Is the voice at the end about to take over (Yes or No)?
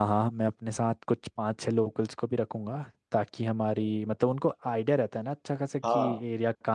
No